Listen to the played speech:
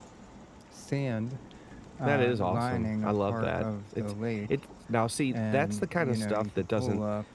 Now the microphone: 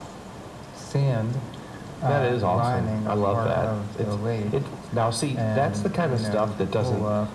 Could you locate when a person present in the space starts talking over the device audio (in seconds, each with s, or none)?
none